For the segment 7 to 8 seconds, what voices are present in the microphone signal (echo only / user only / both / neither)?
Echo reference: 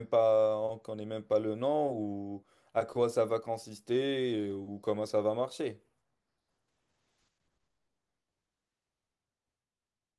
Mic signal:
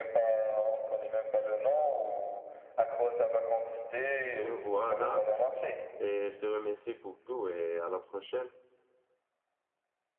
user only